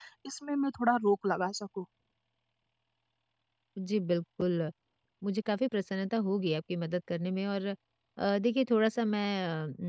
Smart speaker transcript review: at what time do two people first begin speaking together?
none

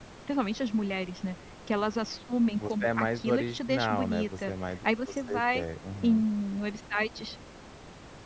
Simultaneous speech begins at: 2.6 s

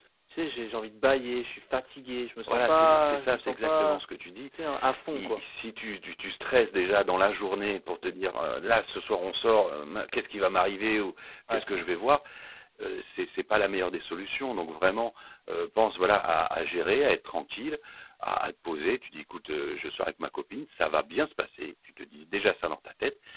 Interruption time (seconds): 2.5 s

